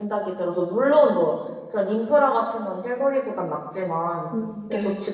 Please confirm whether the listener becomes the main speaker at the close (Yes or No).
No